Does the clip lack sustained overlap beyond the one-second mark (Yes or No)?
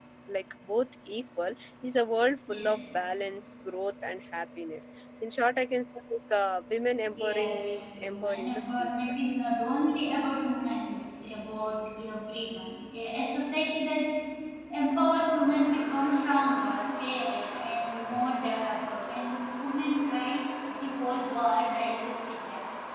No